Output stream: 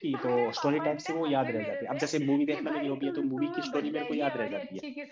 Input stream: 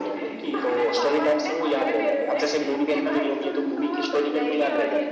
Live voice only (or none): none